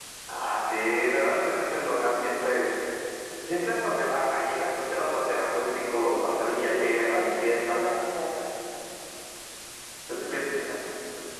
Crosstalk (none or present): present